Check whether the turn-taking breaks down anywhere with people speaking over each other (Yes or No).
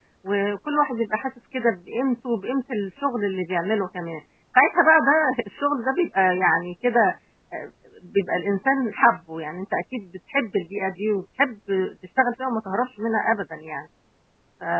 No